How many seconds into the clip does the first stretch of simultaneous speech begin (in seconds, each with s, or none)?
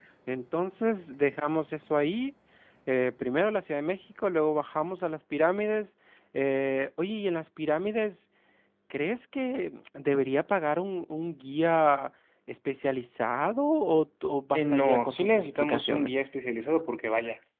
14.5 s